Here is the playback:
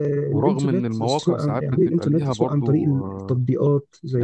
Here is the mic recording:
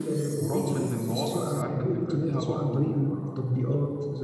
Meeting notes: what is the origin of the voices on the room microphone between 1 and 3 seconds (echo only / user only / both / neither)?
echo only